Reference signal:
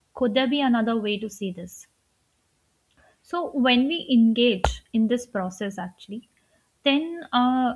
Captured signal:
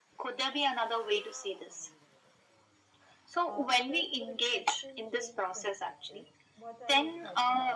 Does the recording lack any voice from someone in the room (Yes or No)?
No